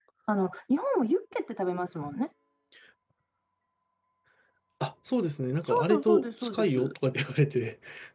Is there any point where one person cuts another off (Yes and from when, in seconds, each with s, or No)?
Yes, from 5.6 s